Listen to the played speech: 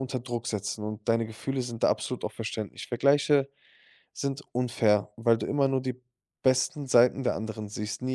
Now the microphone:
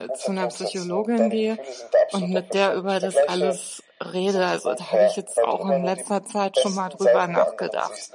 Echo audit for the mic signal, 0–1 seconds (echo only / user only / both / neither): both